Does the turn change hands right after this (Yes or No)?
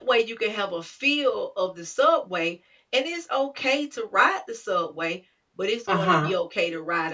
No